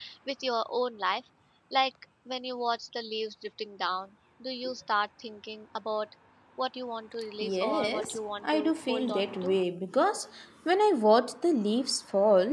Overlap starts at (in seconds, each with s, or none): 7.4 s